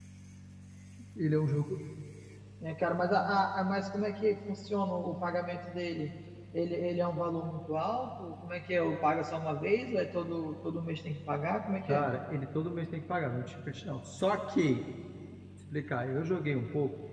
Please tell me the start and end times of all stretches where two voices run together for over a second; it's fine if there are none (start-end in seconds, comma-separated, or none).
none